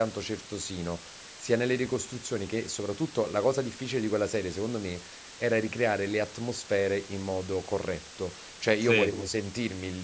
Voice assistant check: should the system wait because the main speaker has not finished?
Yes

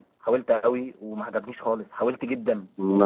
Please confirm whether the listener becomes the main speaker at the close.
Yes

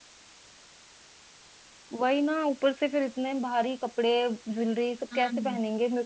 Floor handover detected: No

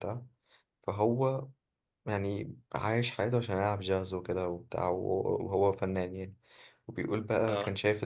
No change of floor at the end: Yes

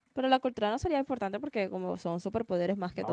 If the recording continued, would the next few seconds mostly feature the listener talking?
Yes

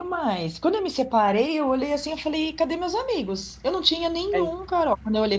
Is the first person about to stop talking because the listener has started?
No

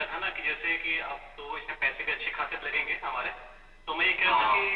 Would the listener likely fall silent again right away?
Yes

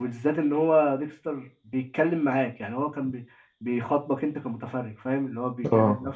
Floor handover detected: No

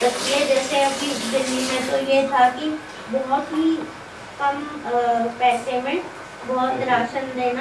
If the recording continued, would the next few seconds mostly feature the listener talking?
No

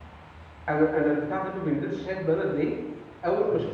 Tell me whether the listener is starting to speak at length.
No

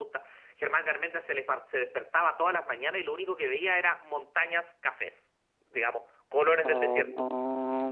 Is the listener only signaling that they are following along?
No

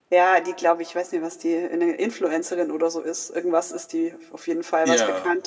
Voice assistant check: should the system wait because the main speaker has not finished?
Yes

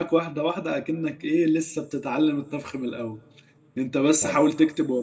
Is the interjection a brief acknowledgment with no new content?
Yes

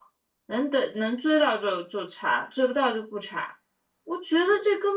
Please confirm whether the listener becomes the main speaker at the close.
No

